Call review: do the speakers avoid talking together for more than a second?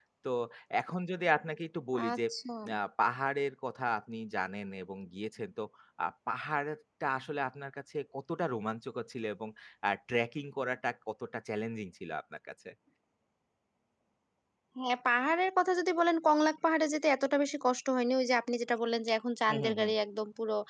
Yes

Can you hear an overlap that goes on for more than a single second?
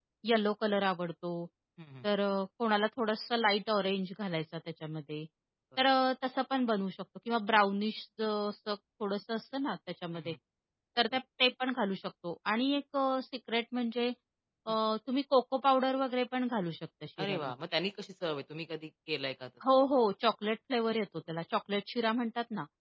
No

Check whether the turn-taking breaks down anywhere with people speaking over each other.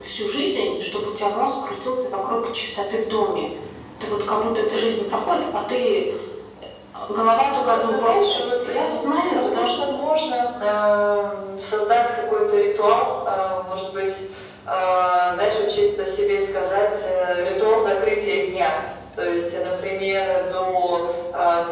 Yes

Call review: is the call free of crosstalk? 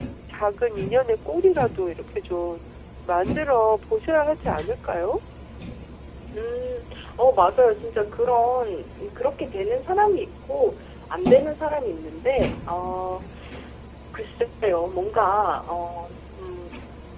Yes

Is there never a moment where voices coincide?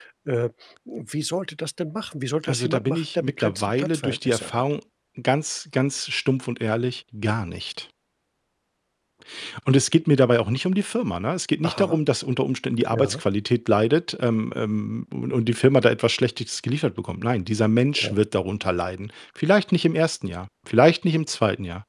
No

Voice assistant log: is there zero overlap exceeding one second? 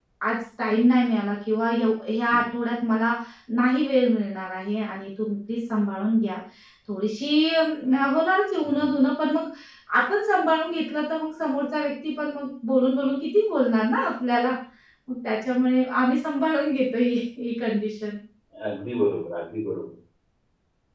Yes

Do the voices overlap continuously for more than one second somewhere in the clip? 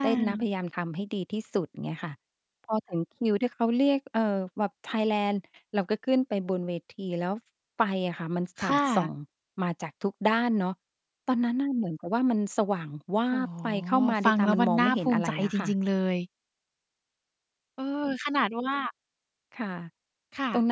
Yes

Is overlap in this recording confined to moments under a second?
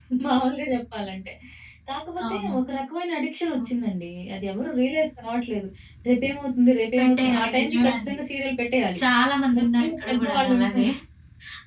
No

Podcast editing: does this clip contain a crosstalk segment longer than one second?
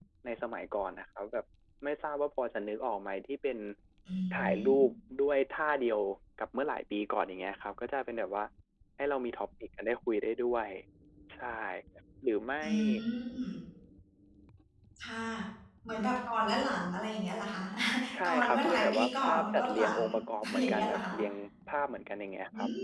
Yes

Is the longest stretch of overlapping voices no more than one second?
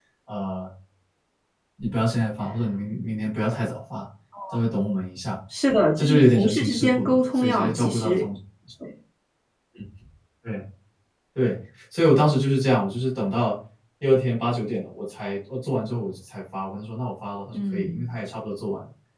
No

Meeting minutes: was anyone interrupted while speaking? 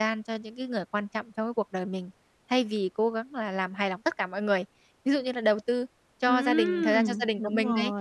Yes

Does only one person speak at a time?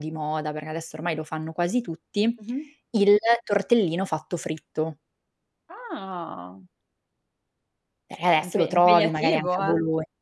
No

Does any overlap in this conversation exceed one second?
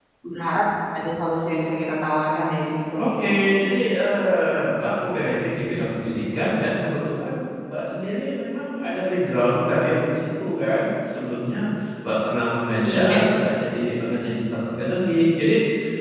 No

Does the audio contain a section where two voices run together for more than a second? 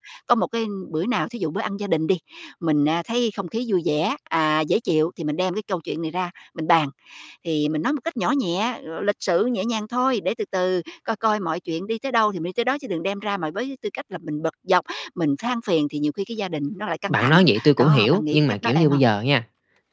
Yes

